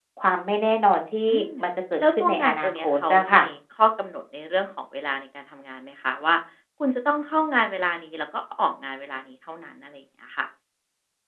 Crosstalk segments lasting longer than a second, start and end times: 2.1-3.4

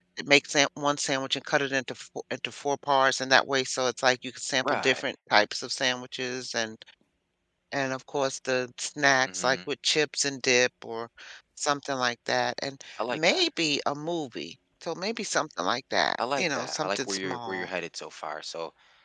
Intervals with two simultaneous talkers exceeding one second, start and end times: 16.4-17.7

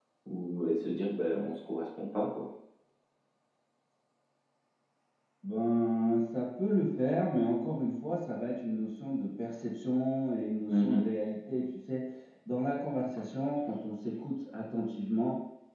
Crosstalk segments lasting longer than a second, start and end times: none

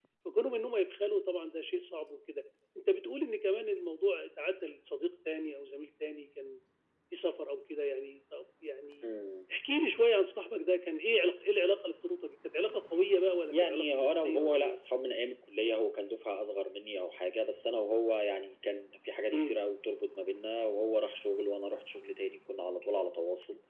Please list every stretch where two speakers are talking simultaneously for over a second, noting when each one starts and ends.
13.5-14.8

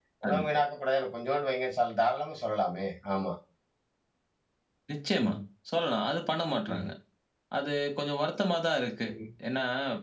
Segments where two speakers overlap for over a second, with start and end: none

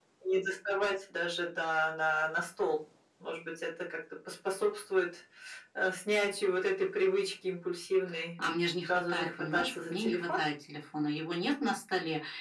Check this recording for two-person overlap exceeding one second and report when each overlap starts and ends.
8.8-10.4

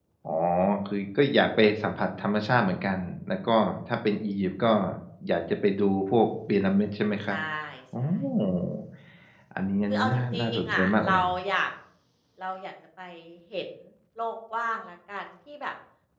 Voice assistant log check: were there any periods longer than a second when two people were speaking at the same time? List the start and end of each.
9.9-11.2

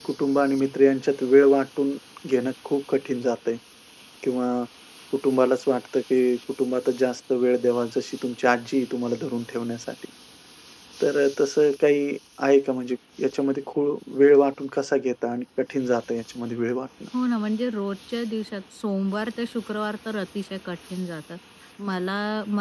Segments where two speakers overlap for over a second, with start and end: none

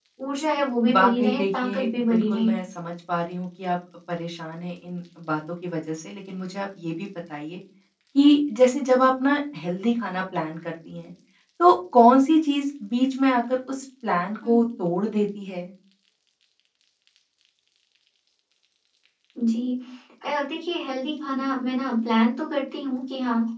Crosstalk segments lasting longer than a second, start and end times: 0.9-2.5

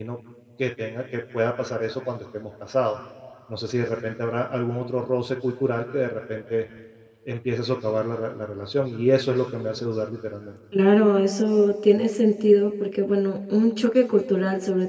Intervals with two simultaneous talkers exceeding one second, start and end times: none

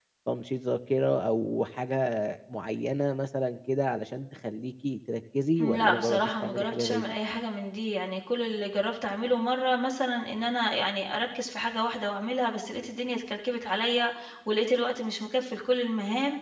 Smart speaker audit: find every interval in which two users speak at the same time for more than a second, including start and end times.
5.6-7.2

